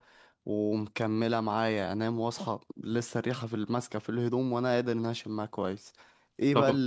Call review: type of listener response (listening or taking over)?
listening